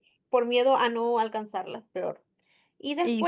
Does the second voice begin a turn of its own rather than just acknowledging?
No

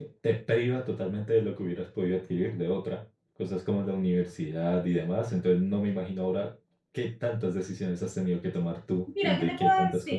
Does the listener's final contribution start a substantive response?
Yes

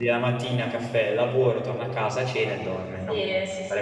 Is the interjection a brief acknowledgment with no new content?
No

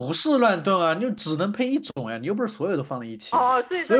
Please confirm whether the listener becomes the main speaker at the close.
Yes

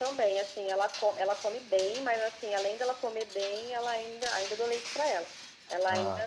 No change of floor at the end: Yes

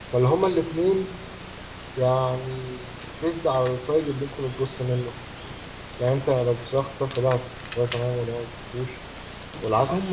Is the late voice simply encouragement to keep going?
No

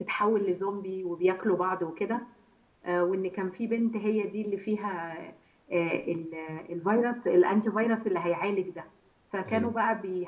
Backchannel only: Yes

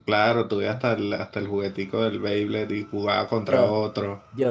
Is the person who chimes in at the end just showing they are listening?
No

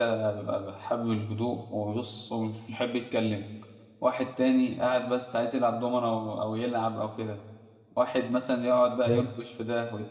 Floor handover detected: No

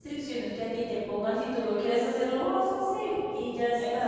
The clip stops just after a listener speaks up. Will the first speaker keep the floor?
No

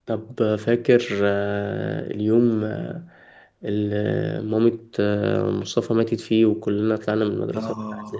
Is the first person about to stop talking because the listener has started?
Yes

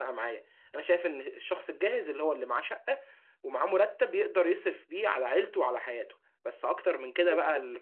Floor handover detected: No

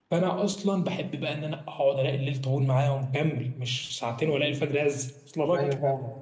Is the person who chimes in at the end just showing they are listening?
No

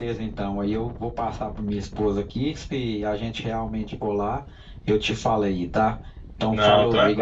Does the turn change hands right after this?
Yes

